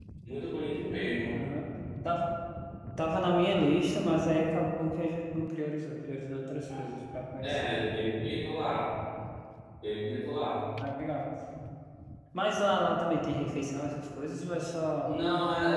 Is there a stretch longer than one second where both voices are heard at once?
No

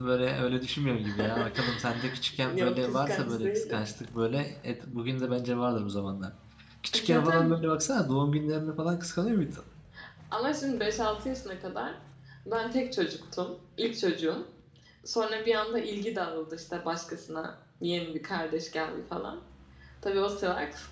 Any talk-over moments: Yes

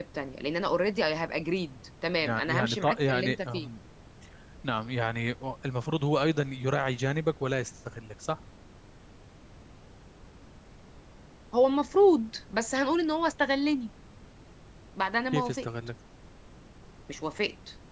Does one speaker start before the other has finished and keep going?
Yes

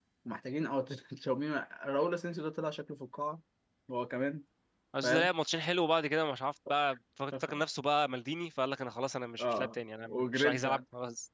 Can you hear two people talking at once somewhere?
Yes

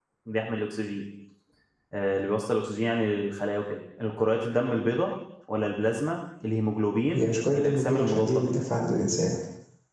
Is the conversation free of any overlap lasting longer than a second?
No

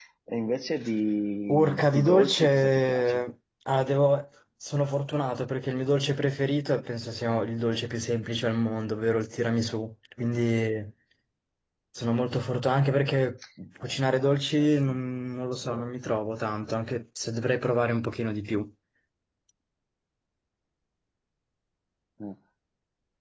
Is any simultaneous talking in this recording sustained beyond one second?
Yes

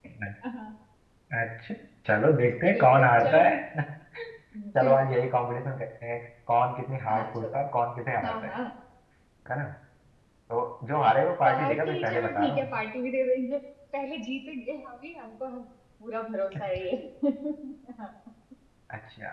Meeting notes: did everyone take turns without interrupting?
No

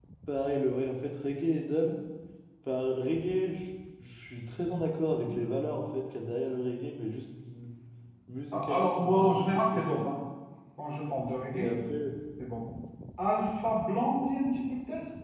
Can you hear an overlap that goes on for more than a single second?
Yes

